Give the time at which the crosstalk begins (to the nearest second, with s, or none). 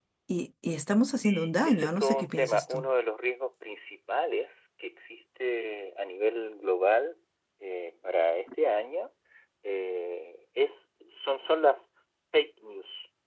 1 s